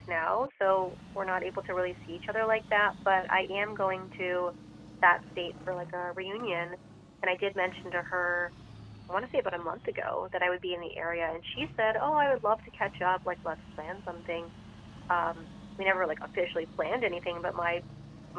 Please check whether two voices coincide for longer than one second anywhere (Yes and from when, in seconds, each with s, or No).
No